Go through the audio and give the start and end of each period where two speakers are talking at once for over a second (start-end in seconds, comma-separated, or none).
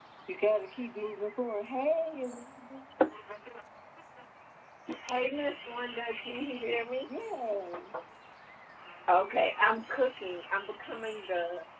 none